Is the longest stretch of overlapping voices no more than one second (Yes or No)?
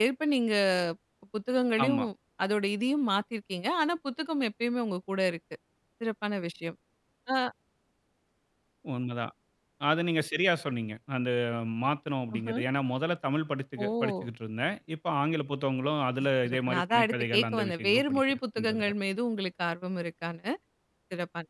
No